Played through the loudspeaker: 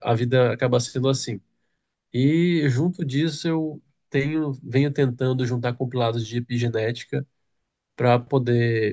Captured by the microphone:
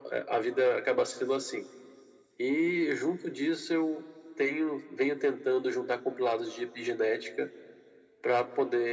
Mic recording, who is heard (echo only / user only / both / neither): echo only